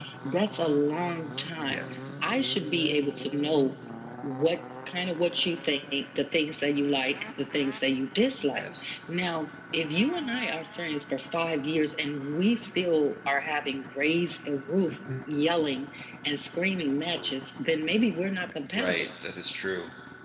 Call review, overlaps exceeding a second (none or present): none